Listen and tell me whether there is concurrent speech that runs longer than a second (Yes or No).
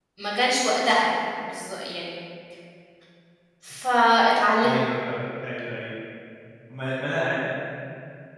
No